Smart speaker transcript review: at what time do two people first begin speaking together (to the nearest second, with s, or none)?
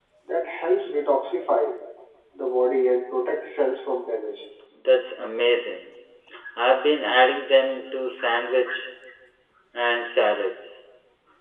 none